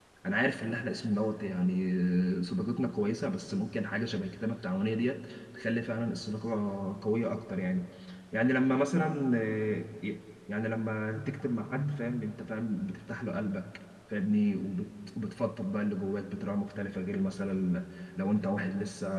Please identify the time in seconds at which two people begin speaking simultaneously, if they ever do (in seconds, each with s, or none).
none